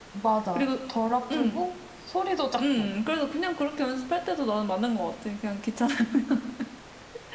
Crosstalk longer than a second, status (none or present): none